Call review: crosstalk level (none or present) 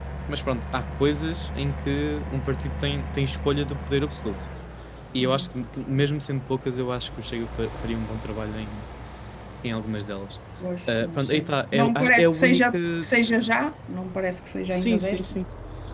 present